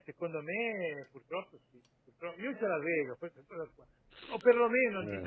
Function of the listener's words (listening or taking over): listening